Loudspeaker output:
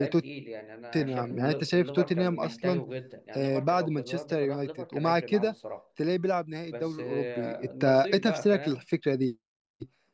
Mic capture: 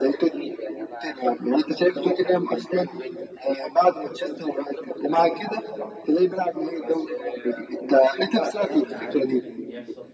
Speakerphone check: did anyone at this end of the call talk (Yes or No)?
Yes